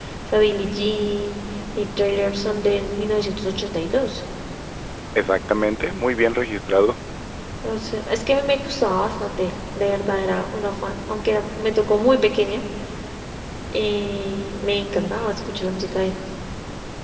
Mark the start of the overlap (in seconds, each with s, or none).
none